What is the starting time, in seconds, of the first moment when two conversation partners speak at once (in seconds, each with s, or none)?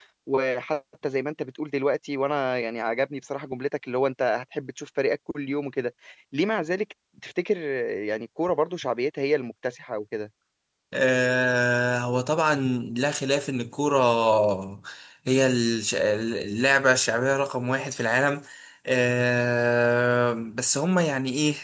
none